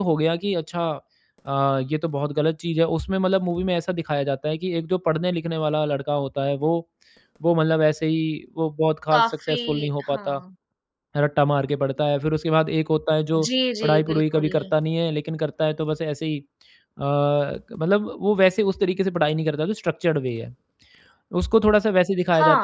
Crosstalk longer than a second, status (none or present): present